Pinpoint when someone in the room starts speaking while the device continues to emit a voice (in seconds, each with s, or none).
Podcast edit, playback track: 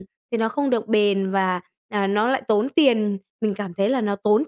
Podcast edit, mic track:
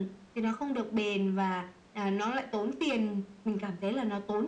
none